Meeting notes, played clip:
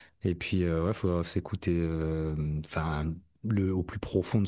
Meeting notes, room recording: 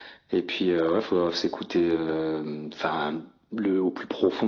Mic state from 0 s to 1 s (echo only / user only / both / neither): echo only